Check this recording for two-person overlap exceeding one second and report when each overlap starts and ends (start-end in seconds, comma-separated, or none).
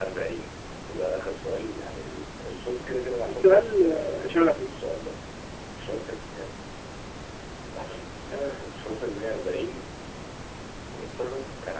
3.3-4.7